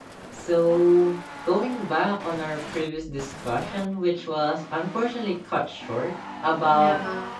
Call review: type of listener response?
listening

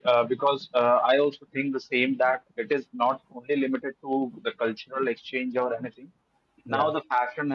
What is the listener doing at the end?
listening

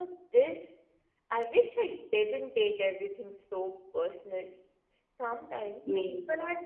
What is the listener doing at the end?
listening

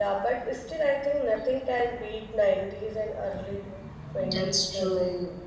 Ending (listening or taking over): taking over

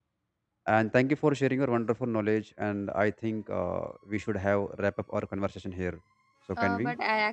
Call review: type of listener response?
taking over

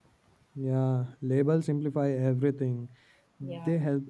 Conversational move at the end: listening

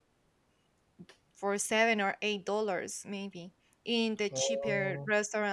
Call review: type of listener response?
listening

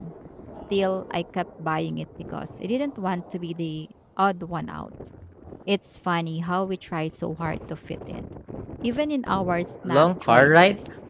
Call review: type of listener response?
taking over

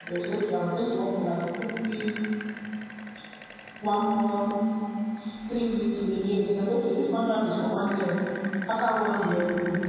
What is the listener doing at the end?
listening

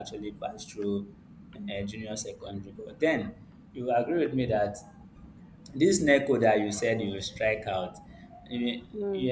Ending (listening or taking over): listening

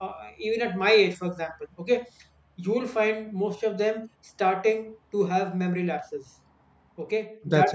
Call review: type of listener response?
listening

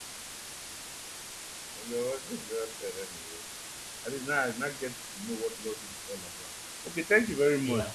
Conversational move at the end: listening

